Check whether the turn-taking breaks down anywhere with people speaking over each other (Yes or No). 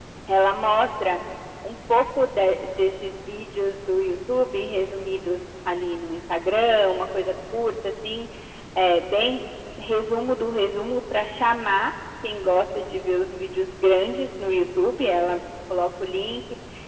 No